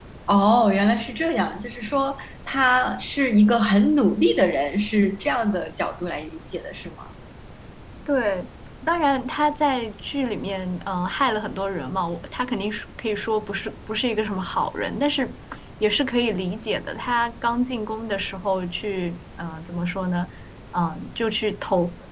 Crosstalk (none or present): none